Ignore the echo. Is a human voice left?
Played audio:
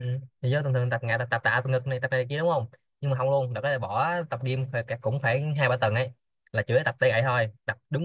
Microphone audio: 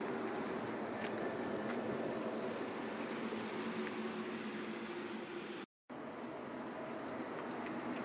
No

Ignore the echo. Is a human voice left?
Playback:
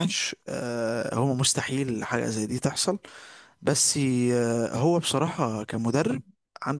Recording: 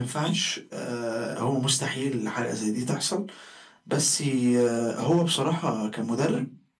No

